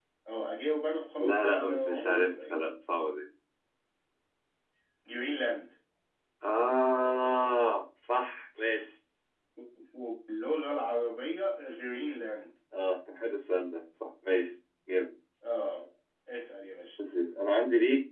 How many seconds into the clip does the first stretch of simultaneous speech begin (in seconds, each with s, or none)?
1.2 s